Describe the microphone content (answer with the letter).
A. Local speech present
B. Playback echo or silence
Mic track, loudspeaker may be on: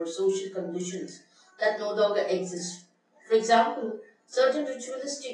B